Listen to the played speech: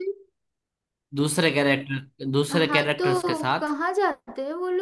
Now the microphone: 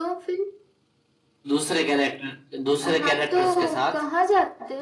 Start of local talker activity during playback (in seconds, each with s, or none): none